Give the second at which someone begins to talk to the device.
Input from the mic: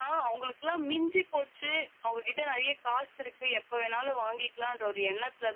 none

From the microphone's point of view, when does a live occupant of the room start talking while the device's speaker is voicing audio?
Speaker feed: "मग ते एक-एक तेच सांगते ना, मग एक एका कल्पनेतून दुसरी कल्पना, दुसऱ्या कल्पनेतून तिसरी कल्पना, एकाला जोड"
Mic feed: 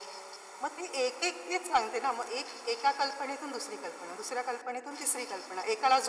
none

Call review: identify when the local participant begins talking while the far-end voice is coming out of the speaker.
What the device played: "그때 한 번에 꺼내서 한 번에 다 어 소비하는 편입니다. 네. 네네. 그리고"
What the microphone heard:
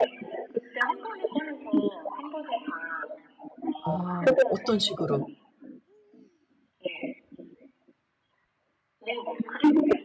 3.8 s

